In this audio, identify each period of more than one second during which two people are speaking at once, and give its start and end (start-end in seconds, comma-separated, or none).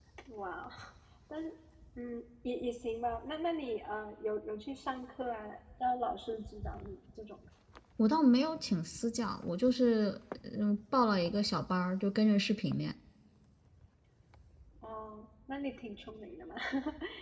none